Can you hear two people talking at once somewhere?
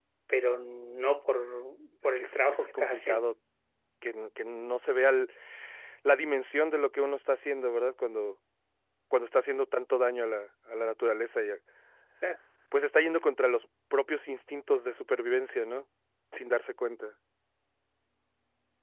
Yes, from 2.0 s

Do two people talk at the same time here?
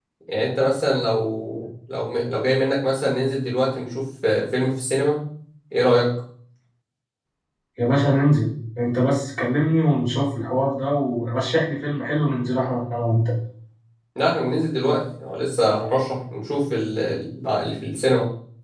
No

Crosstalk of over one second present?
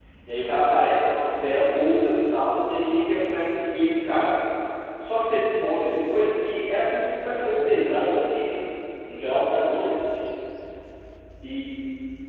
No

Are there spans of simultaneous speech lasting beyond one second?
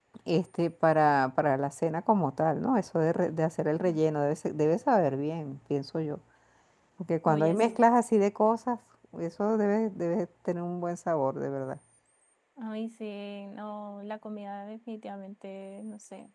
No

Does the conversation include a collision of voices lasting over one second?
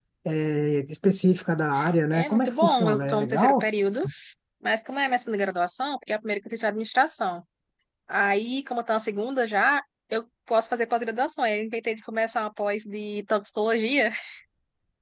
Yes, from 2.1 s

